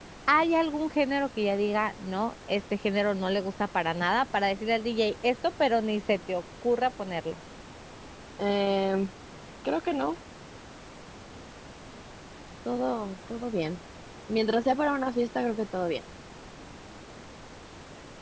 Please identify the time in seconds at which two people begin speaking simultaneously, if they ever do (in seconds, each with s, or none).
none